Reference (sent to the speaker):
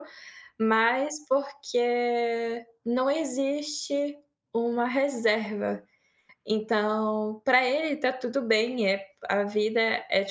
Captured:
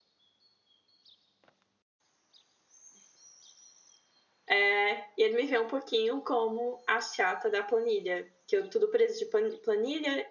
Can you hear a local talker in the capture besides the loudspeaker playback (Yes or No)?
Yes